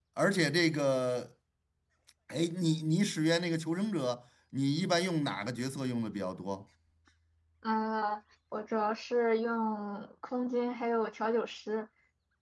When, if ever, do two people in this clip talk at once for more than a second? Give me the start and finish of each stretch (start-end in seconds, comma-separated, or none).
none